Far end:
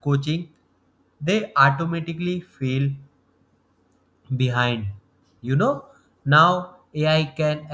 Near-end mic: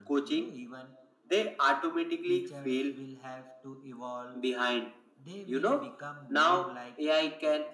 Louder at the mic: echo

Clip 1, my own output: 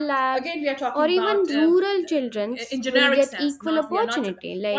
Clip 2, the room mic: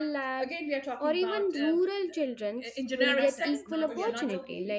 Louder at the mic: echo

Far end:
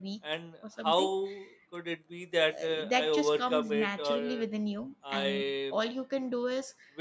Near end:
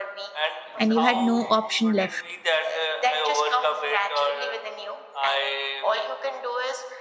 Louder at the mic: user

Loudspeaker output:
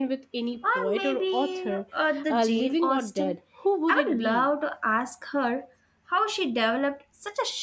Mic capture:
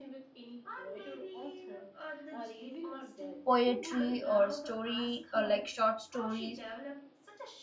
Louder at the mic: user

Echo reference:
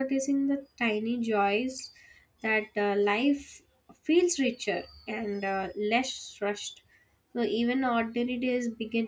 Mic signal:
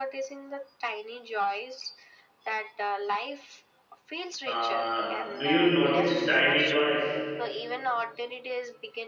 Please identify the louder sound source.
user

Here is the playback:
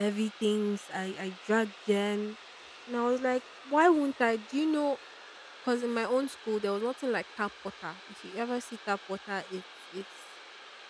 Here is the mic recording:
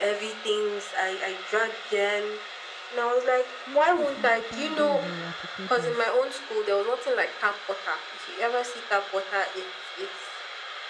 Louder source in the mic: echo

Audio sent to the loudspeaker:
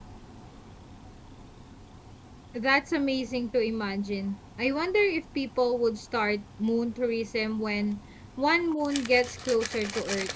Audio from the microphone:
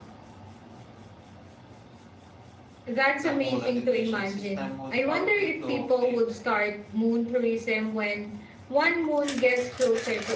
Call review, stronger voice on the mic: echo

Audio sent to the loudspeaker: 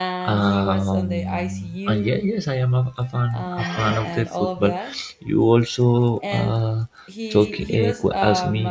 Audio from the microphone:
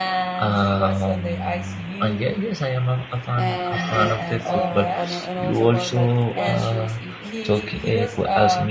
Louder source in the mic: echo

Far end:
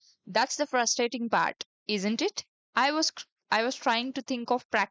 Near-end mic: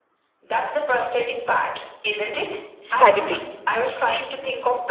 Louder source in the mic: user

